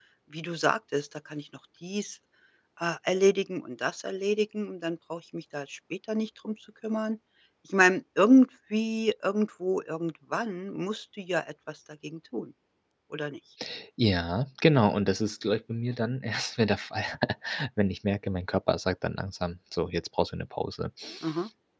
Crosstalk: none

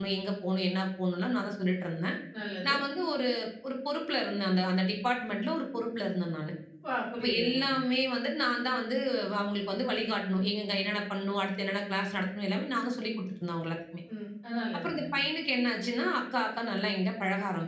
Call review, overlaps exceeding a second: none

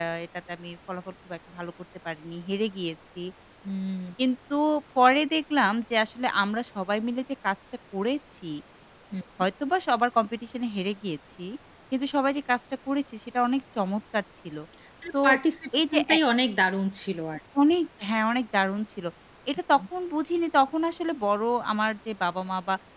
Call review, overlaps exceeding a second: none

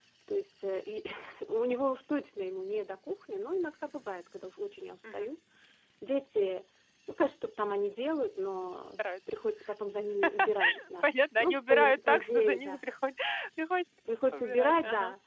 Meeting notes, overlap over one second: present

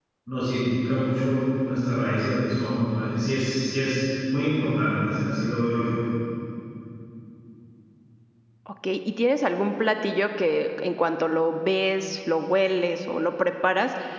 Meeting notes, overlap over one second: none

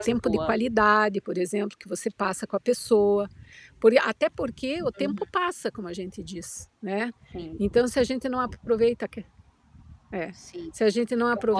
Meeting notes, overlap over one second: none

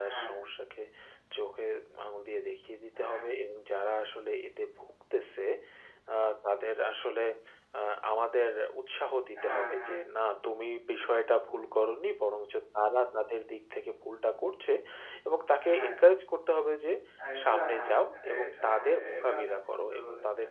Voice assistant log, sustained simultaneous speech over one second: present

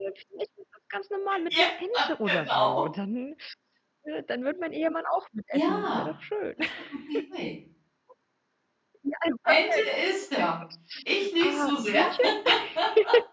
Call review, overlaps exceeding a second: present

